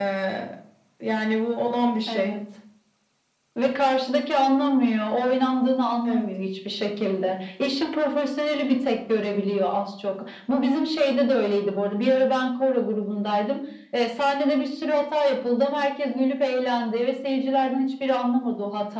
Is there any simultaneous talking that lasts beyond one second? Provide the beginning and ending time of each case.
none

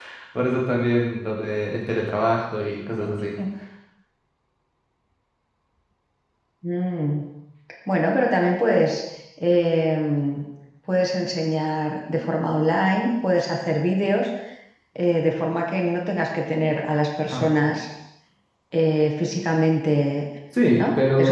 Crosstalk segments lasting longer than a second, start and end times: none

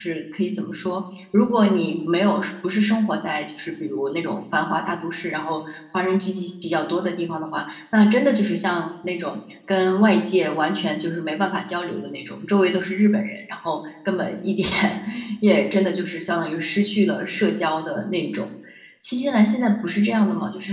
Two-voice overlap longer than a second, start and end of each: none

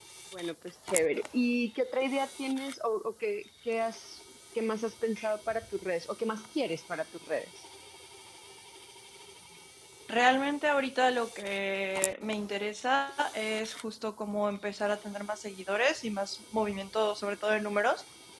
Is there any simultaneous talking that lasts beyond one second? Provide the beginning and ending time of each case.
none

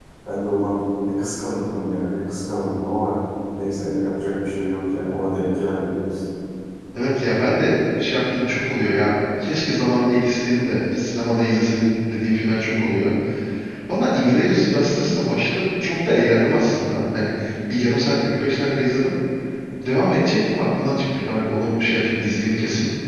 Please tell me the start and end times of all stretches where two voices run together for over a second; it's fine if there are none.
none

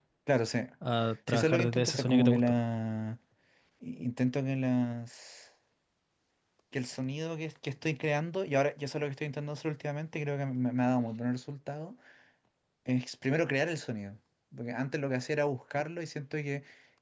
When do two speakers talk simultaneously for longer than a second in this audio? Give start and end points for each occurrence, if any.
1.3-2.6

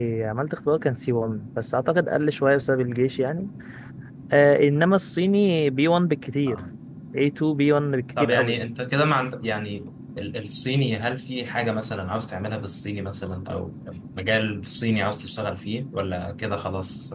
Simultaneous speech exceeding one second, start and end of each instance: none

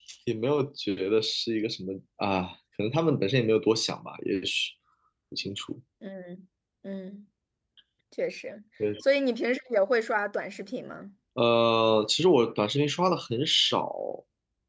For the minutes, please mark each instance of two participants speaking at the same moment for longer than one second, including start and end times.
none

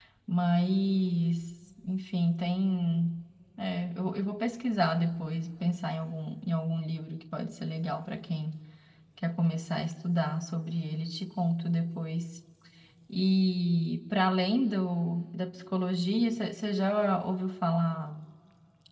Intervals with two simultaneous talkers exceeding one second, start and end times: none

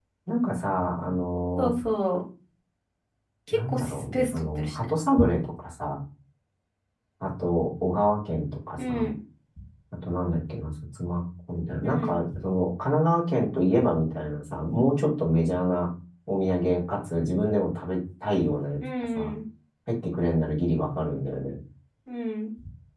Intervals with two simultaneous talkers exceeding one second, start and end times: 3.5-4.9

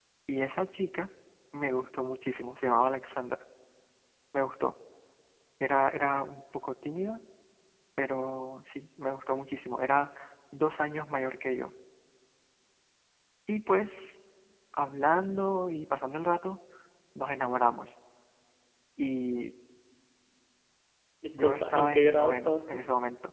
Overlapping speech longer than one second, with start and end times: 21.3-22.8

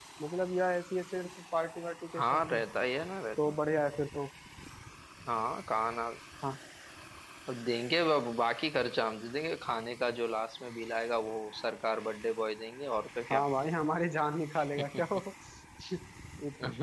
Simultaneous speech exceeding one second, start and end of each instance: none

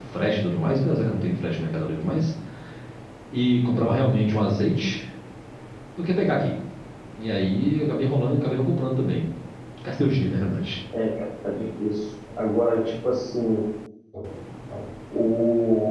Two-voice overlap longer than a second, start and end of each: none

